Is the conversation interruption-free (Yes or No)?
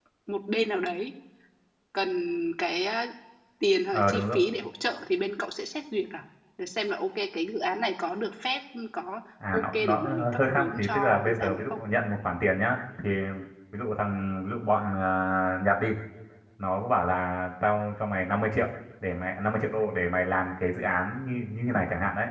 No